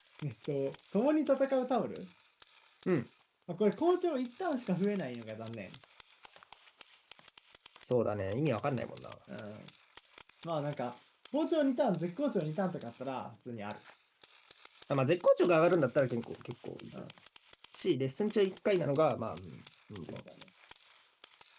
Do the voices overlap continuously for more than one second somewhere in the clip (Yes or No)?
No